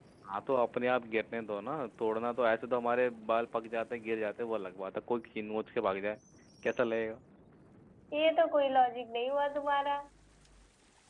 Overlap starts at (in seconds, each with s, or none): none